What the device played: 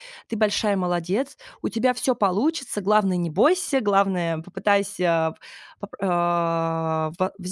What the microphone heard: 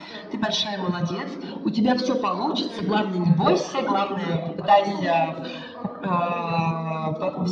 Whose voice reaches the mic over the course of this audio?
both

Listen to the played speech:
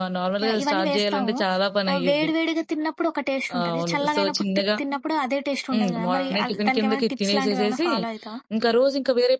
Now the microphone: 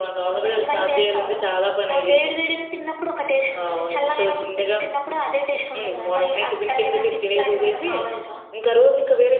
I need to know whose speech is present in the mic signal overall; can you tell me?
echo only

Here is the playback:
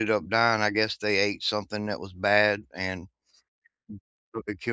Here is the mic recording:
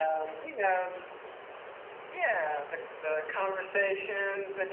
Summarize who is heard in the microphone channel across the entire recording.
user only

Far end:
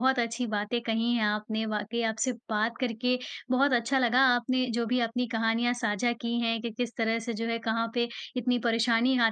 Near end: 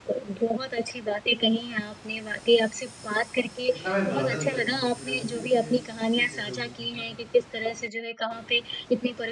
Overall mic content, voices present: both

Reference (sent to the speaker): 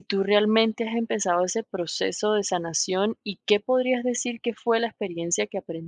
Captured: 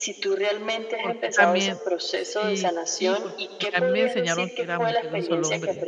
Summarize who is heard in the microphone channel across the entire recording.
both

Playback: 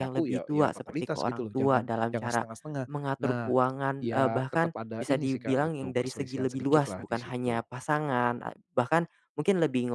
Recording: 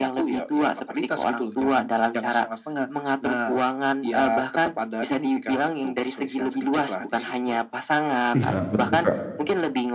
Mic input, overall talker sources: both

